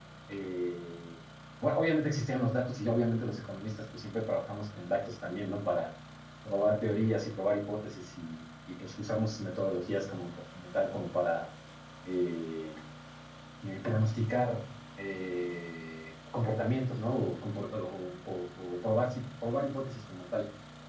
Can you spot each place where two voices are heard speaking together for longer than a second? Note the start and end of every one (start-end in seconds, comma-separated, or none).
none